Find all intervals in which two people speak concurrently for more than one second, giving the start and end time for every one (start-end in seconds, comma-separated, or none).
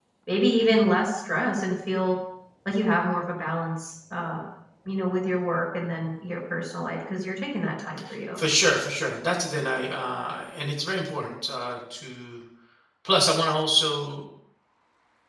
none